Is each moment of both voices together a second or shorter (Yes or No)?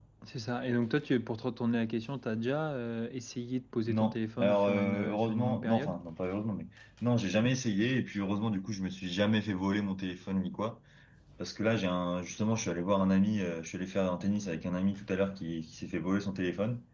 No